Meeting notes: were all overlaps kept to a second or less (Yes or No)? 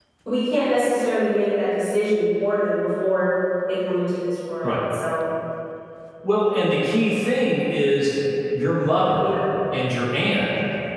Yes